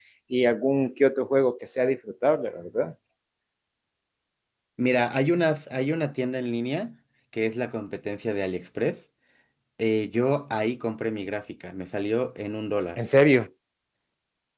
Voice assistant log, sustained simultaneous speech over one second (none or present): none